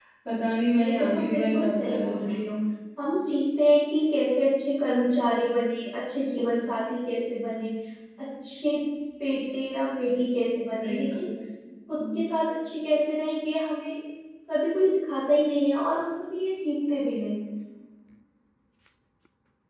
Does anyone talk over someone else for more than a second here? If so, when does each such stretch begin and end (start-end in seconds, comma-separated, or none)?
0.7-2.3